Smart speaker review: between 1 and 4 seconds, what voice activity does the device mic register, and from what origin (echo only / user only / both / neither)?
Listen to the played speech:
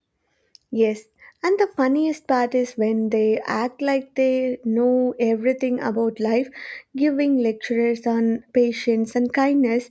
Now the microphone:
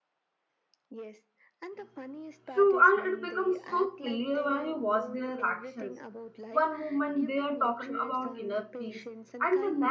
both